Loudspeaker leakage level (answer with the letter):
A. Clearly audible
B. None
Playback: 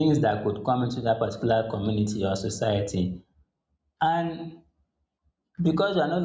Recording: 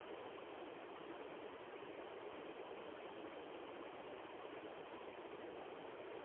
B